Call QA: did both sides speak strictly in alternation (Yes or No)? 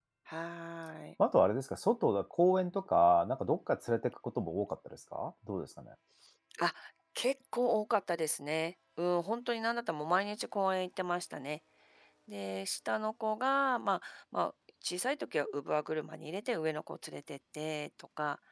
Yes